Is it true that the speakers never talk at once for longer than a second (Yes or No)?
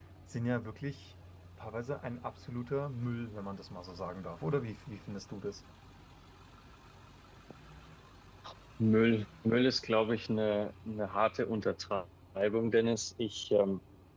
Yes